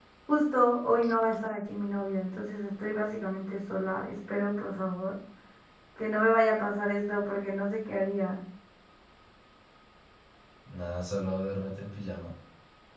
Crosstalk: none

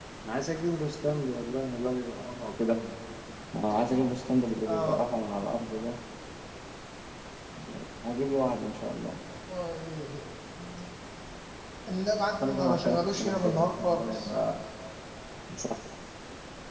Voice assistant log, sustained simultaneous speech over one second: present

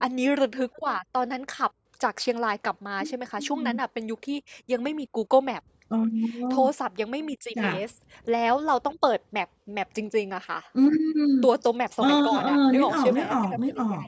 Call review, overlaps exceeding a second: present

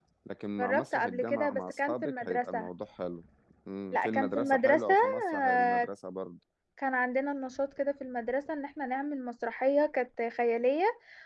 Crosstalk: present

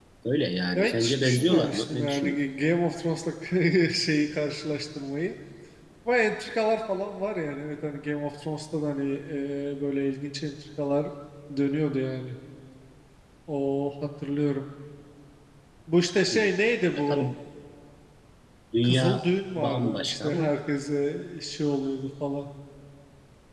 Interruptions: present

